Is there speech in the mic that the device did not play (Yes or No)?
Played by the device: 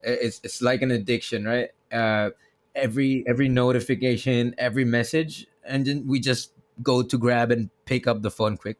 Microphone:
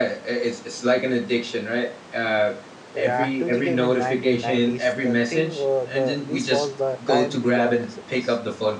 Yes